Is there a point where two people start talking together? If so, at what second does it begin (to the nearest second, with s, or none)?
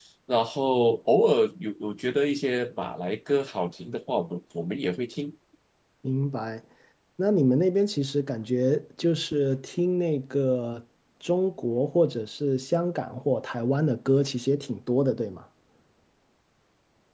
none